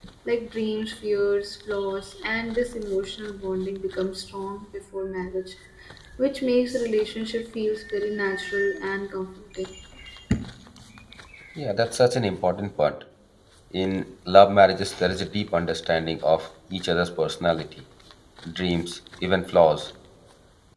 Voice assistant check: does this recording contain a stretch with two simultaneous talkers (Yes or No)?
No